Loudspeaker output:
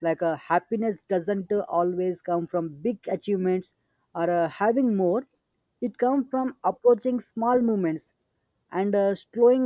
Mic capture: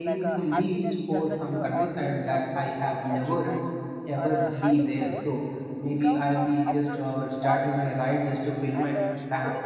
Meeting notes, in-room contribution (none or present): present